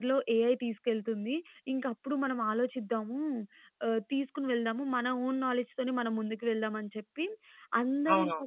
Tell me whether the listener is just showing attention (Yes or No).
Yes